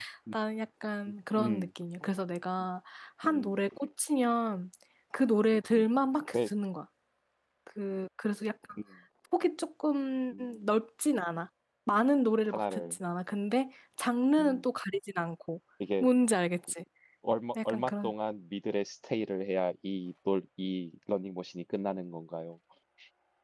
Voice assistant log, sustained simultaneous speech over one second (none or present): none